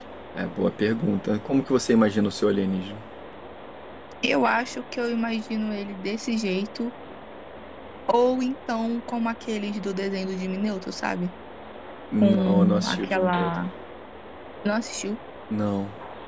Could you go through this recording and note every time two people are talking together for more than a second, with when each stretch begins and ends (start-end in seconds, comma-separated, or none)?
12.2-13.5